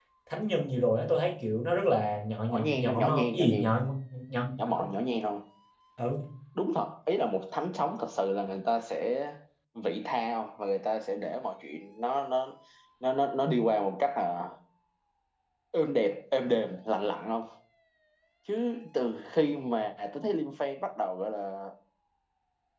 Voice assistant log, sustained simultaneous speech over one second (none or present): present